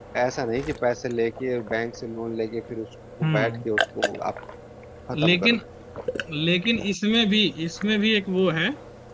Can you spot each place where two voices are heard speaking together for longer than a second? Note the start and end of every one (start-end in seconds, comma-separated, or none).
none